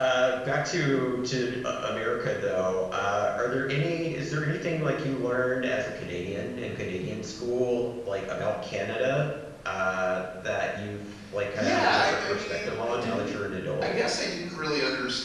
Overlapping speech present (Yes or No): Yes